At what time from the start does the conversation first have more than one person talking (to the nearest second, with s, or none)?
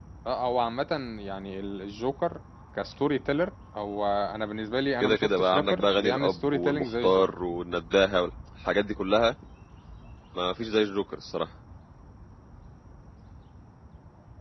5 s